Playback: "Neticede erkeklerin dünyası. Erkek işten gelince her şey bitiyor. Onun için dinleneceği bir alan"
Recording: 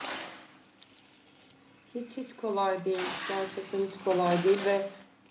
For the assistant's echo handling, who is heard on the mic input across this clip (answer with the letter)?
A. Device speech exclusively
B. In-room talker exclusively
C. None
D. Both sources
B